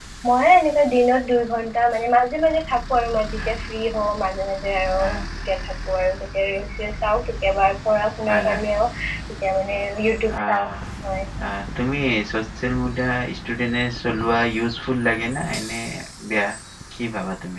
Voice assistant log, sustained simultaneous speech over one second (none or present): none